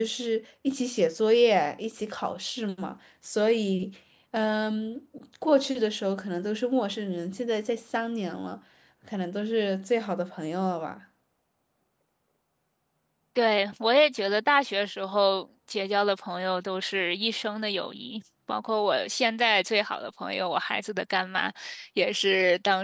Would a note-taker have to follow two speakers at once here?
No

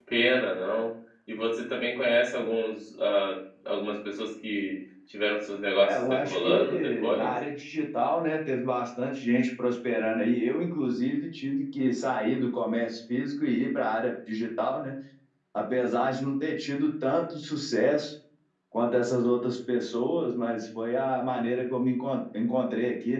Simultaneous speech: Yes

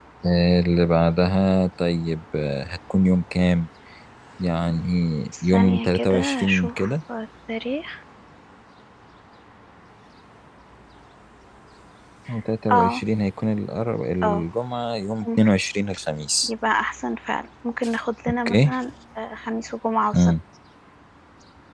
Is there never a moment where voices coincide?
No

